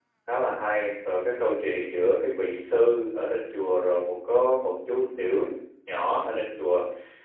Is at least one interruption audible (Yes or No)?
No